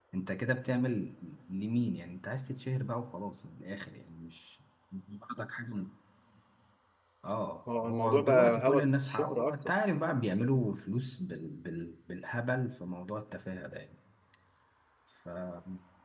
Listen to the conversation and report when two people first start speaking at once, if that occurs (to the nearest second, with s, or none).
8 s